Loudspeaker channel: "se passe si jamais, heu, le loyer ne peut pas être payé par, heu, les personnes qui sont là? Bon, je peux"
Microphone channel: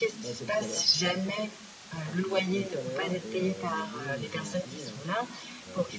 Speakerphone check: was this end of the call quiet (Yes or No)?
No